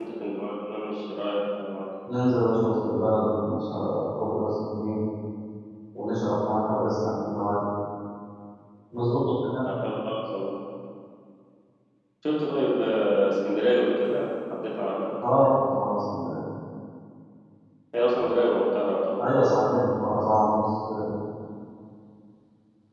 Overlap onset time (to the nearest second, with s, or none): none